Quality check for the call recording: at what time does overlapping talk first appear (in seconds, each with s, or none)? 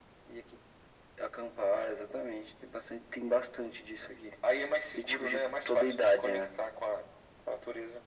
5.0 s